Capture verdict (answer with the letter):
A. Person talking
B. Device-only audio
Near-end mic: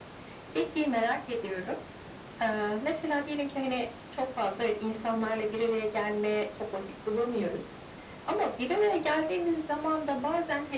B